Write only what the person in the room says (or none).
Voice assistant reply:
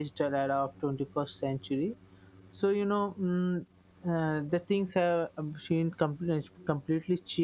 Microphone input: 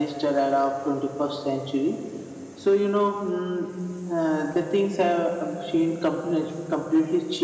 none